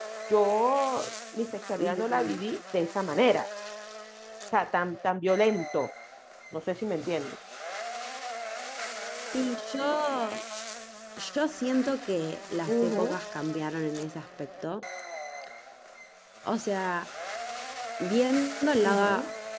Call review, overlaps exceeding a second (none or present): none